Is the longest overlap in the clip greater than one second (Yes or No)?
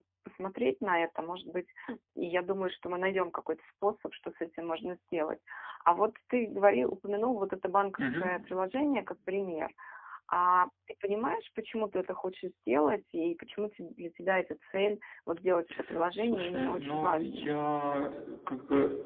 Yes